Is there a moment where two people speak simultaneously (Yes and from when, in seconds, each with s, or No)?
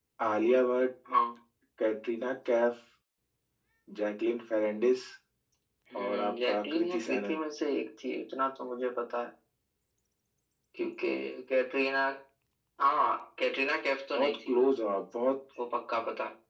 Yes, from 6.0 s